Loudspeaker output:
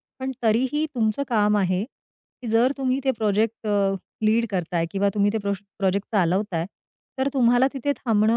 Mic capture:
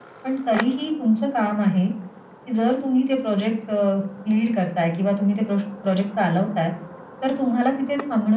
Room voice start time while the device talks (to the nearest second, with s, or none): none